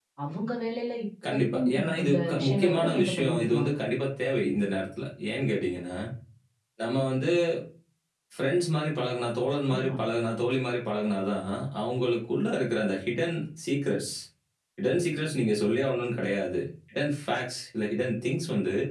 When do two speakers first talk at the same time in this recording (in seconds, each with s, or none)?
1.2 s